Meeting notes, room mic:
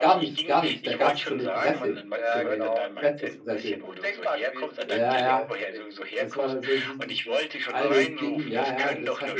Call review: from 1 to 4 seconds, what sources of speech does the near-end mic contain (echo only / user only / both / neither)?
both